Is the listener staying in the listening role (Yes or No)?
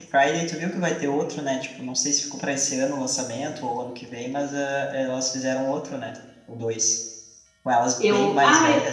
Yes